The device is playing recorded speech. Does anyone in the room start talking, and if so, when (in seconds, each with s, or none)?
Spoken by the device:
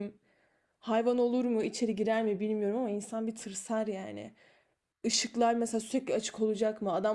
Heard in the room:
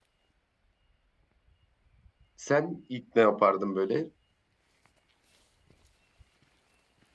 2.3 s